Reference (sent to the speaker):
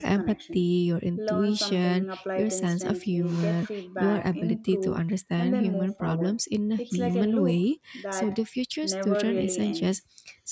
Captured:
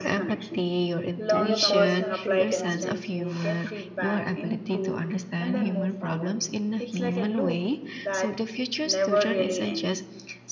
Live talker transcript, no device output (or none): and your personal creative angle.